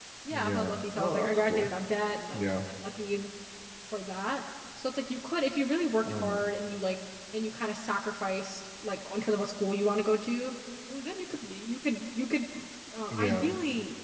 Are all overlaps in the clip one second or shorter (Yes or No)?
No